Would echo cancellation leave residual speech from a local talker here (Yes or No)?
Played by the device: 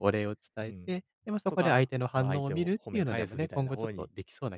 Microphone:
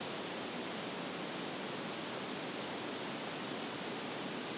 No